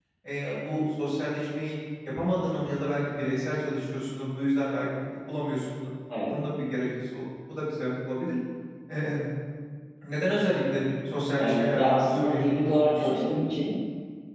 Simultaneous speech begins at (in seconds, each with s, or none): 11.4 s